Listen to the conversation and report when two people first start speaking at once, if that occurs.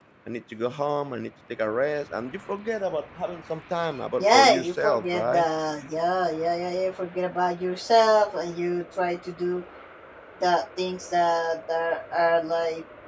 4.2 s

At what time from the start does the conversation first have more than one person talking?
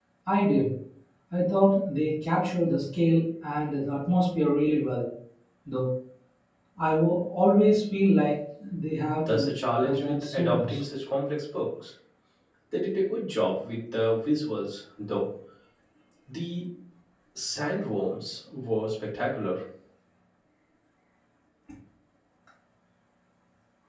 9.3 s

